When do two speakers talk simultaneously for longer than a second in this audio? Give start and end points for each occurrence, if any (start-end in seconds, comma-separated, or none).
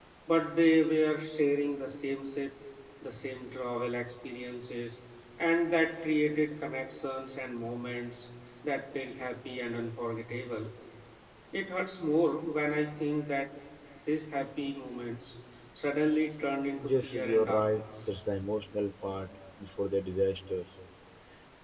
16.8-18.1